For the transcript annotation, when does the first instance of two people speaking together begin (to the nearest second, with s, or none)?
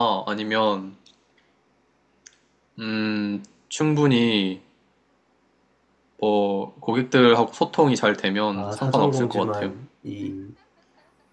9 s